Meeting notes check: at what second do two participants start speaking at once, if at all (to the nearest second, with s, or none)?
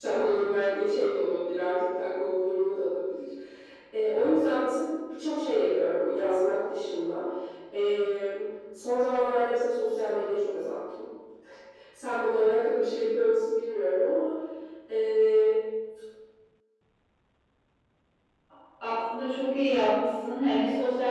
none